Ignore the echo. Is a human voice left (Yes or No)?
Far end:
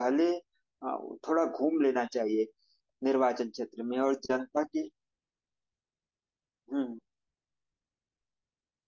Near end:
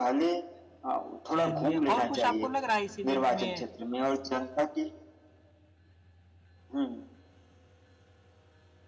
Yes